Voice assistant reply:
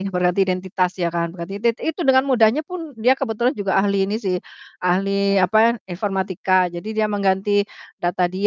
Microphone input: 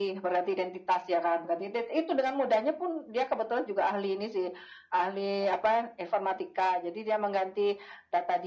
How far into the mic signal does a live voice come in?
none

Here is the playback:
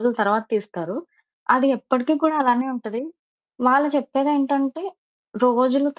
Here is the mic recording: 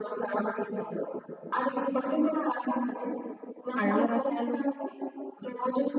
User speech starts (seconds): 4 s

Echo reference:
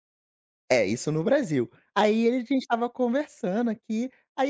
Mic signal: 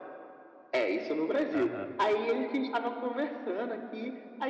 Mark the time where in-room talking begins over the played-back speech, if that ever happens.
2 s

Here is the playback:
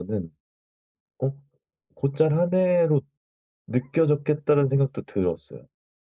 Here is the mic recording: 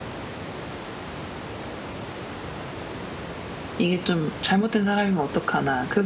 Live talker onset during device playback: 4 s

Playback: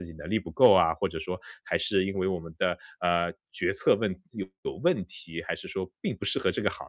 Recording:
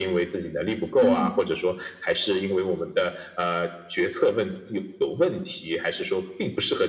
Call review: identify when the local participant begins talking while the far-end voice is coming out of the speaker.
1 s

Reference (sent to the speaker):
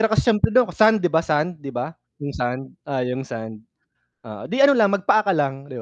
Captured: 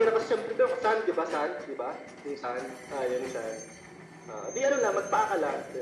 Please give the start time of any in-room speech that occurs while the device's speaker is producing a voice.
none

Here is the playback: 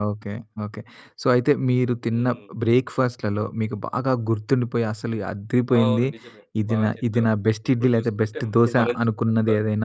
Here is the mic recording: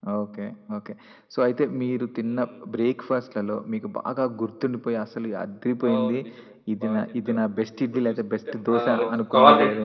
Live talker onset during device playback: 9 s

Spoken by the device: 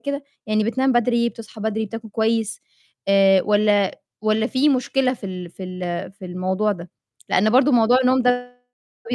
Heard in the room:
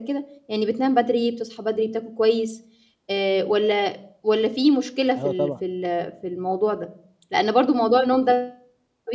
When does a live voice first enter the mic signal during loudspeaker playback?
5 s

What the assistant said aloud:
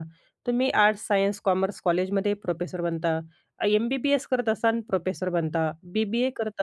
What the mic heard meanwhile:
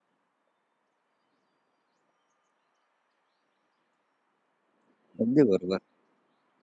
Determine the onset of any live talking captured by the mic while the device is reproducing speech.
5 s

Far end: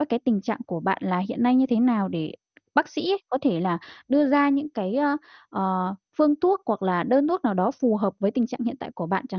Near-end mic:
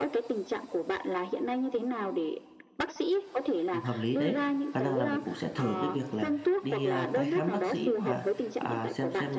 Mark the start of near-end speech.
4 s

